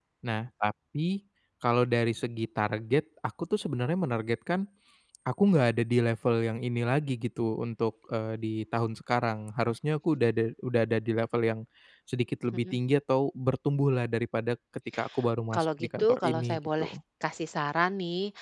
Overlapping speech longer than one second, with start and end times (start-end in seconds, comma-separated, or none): 15.5-16.9